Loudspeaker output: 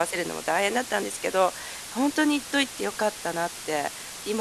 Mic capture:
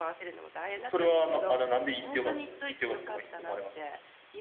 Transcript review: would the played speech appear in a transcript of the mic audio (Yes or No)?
Yes